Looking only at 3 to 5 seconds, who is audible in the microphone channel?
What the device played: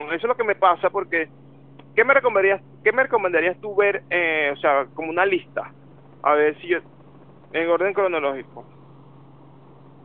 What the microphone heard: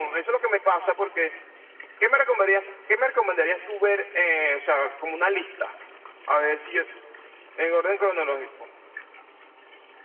echo only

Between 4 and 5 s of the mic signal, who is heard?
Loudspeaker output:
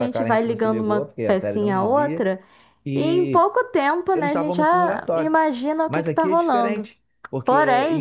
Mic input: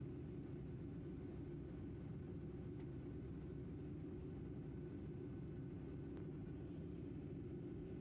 neither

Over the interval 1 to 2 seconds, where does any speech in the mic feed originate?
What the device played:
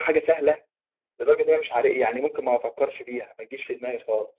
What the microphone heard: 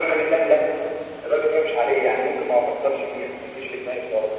echo only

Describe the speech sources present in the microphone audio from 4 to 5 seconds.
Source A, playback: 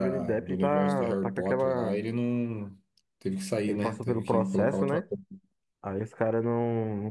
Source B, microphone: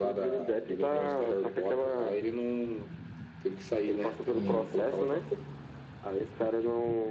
both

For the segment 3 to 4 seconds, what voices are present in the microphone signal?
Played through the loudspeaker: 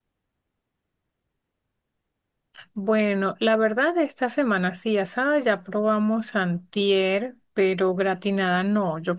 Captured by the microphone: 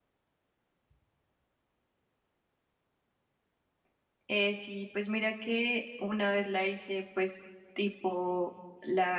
neither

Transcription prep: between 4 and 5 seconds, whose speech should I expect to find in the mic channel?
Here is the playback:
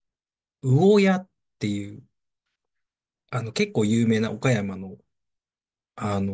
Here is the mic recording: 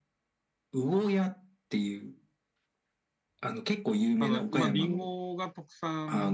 both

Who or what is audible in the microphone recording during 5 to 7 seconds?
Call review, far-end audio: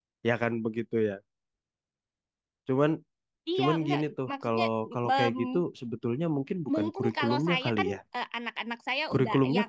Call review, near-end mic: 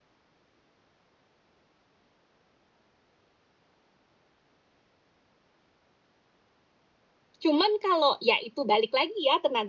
neither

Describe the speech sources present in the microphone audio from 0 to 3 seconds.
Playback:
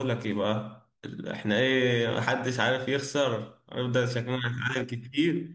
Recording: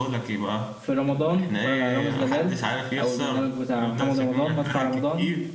both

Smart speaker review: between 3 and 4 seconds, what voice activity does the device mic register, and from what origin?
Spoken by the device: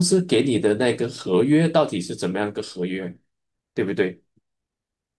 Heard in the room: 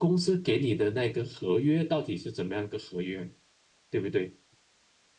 echo only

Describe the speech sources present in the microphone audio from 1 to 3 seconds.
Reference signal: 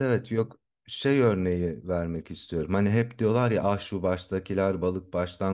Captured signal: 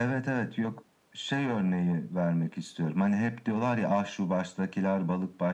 echo only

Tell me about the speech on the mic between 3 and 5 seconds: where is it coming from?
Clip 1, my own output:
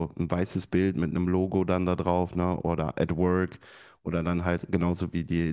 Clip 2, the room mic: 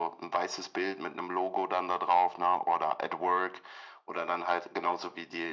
echo only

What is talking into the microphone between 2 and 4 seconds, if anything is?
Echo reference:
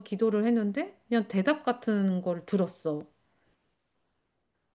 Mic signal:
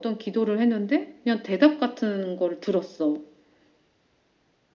echo only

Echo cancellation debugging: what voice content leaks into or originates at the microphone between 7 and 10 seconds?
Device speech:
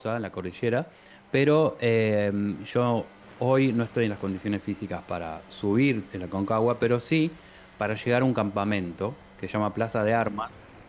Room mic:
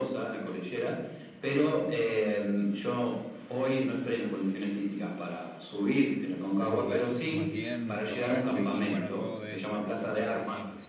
both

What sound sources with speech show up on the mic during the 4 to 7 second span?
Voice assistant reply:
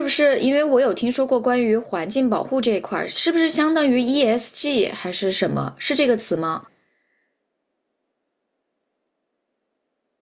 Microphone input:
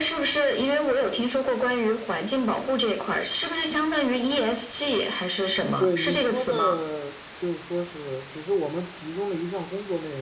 both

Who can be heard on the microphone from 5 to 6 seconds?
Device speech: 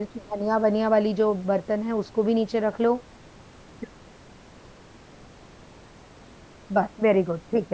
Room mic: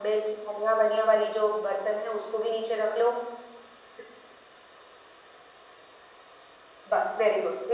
neither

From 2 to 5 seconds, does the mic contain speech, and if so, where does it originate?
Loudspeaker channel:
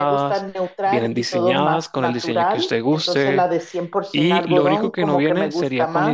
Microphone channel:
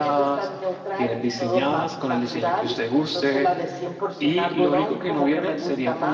echo only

